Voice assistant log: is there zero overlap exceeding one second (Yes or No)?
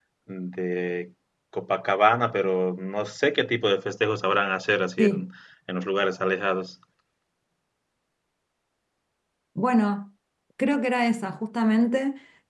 Yes